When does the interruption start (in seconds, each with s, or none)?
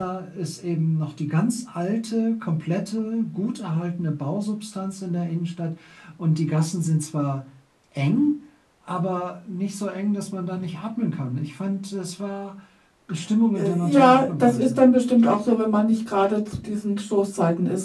13.6 s